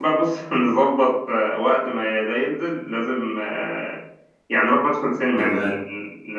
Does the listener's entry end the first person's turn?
No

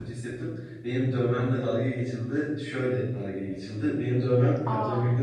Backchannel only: Yes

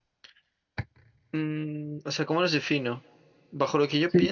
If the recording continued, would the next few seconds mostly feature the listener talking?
Yes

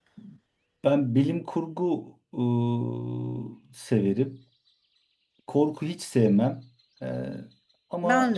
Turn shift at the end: No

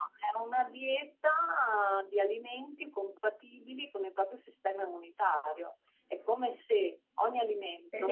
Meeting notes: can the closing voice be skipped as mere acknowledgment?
No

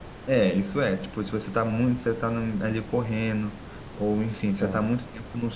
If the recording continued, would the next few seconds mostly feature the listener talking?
No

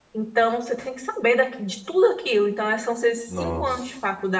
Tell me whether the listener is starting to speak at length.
No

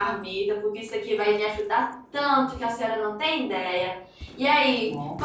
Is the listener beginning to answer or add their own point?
No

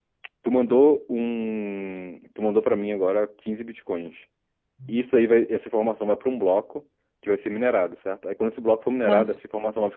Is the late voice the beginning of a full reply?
No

